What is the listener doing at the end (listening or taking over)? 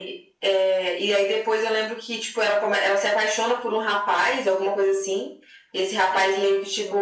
listening